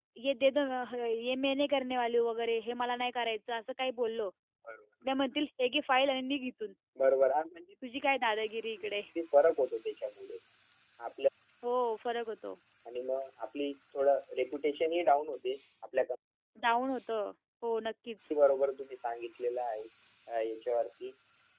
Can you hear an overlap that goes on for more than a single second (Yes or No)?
No